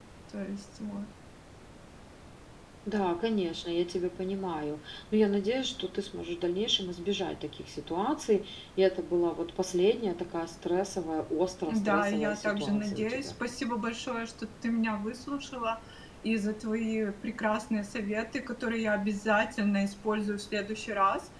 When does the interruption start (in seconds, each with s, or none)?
11.7 s